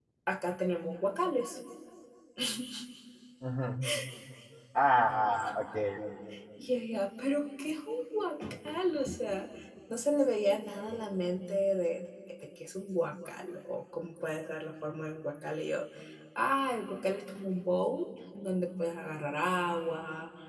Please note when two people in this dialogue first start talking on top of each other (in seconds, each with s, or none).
none